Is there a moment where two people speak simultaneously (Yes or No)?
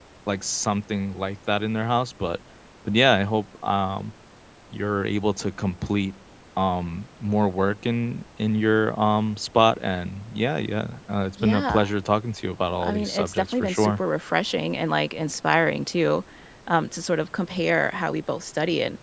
Yes